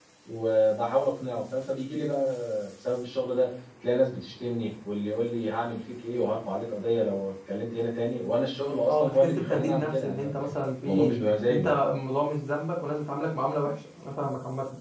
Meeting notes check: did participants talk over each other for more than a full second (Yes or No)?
Yes